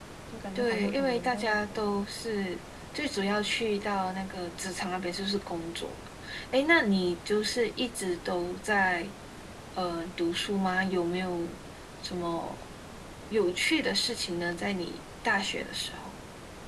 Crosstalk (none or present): present